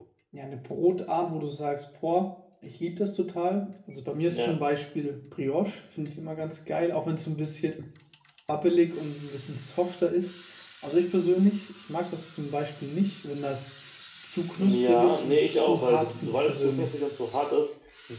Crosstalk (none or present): present